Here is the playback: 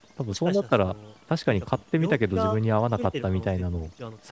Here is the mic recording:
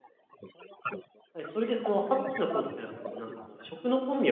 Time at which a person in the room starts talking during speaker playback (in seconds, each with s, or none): 1.3 s